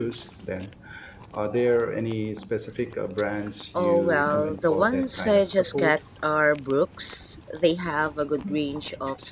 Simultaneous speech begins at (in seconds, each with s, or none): 3.7 s